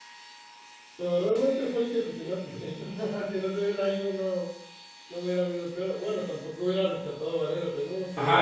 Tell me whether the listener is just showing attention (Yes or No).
No